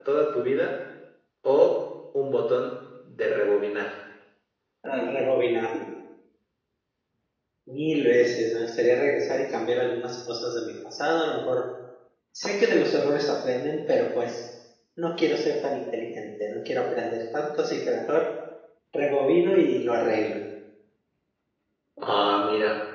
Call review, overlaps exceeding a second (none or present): none